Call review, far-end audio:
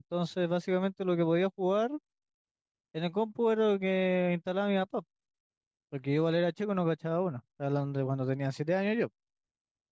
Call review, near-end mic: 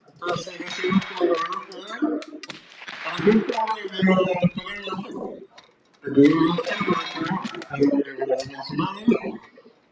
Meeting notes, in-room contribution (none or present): none